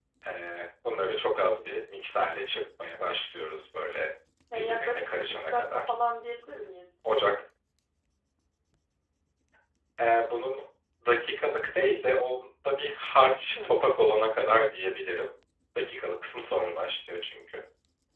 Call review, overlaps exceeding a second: present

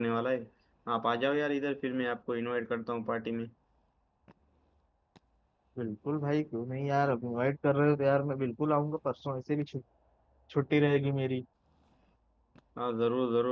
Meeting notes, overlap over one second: none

